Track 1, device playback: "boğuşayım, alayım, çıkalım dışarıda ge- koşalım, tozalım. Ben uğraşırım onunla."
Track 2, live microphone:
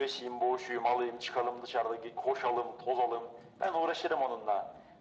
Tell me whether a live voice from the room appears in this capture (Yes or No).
No